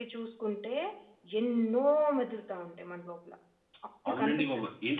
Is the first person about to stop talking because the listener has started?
Yes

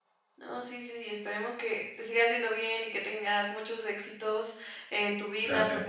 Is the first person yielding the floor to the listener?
No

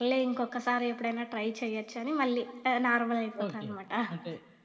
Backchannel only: No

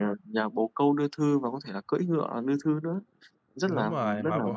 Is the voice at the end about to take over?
Yes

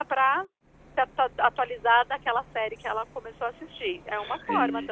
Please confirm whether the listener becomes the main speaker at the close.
Yes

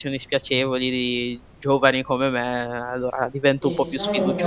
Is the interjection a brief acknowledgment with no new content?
No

